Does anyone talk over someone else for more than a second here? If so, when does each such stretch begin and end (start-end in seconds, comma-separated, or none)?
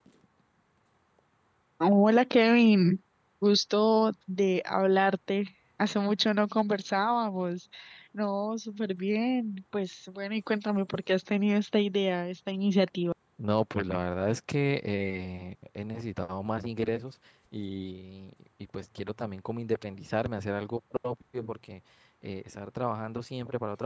none